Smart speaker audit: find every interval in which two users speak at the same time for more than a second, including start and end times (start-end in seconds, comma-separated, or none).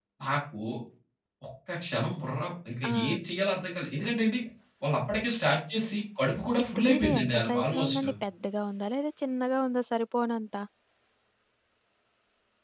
6.6-8.0